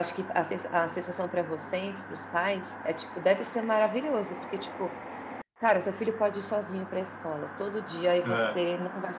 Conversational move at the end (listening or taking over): listening